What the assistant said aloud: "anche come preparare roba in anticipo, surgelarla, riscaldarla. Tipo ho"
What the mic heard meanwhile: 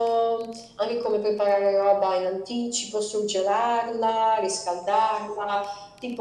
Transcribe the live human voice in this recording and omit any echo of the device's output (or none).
none